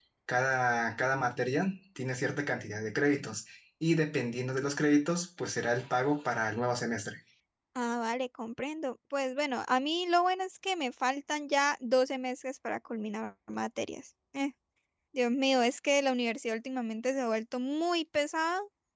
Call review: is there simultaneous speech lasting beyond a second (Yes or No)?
No